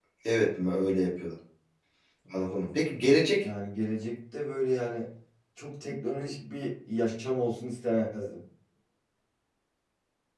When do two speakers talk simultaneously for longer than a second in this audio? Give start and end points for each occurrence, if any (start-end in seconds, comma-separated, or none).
none